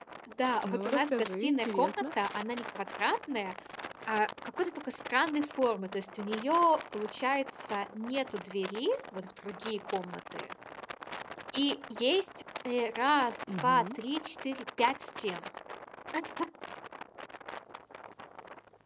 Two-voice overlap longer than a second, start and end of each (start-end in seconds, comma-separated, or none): 0.6-2.0